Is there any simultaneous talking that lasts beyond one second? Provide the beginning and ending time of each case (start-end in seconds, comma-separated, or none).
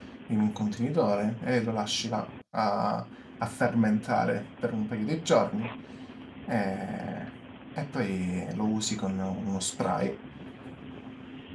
none